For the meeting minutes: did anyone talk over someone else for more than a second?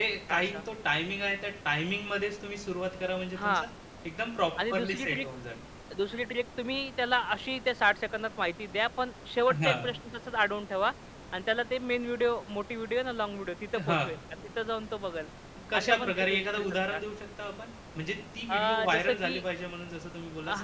Yes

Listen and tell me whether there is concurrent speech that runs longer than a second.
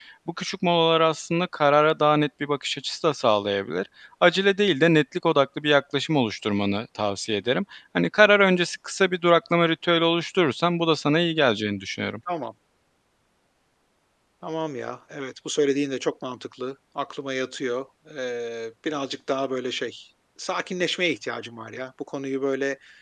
No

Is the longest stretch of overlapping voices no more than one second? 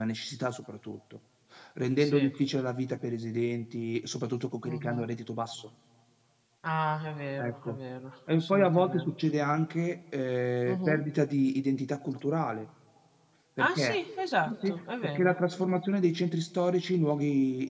No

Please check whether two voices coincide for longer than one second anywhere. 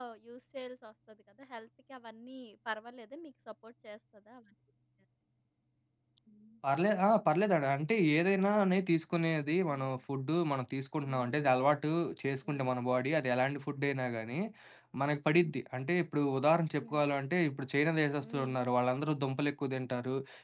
No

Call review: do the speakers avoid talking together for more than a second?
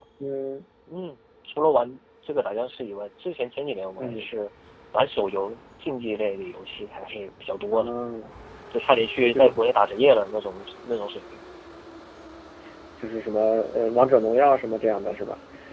Yes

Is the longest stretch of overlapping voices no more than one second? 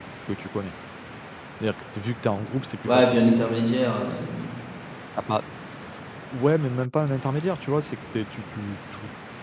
Yes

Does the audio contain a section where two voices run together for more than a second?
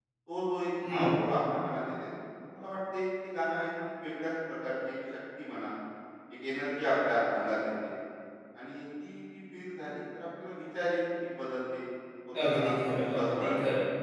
Yes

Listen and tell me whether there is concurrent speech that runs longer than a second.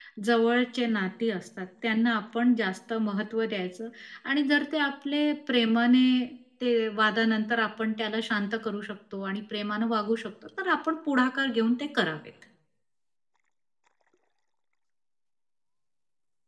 No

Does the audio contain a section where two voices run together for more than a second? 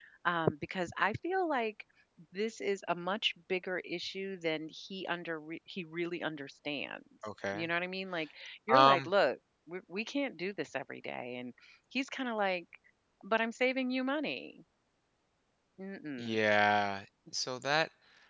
No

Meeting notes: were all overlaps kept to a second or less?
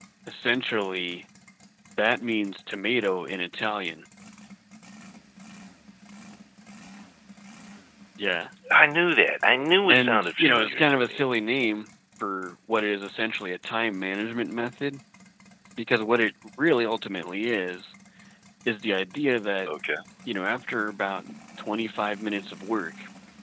No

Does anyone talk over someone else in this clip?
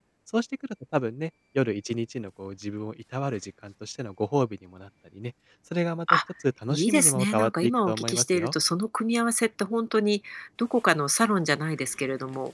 Yes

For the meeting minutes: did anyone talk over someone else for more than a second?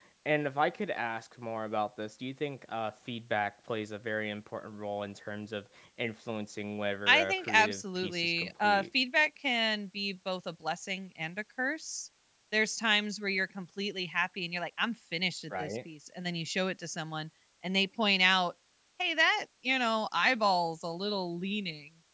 Yes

